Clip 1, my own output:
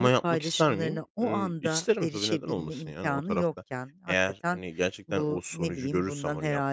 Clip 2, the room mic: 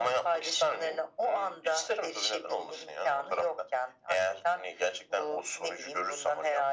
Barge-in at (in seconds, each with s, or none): none